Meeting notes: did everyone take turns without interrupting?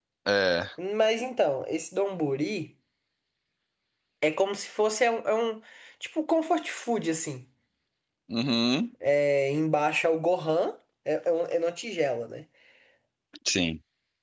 Yes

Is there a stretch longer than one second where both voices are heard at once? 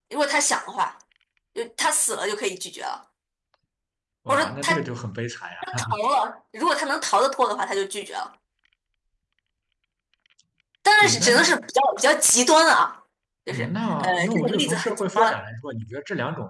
Yes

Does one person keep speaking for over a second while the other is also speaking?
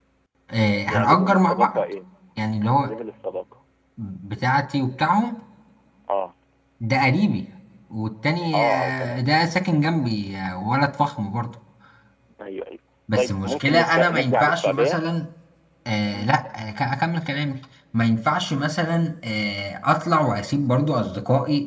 Yes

